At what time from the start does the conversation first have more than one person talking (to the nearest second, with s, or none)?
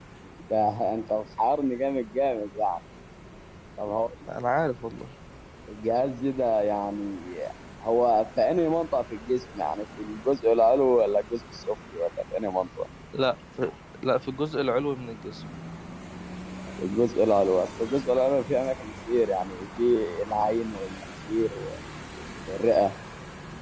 none